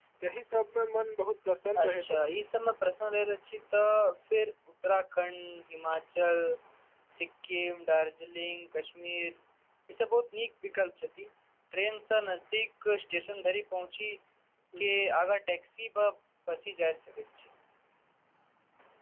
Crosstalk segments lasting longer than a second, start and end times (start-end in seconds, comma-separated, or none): none